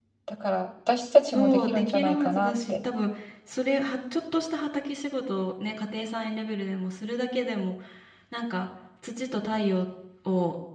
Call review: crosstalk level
present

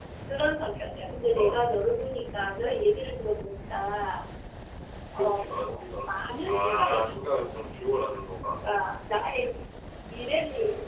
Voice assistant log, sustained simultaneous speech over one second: present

